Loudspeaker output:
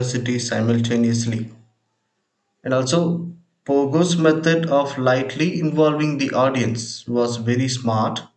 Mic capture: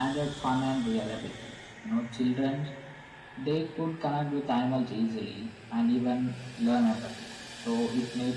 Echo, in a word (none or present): none